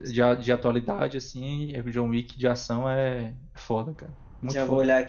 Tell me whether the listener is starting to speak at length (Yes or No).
Yes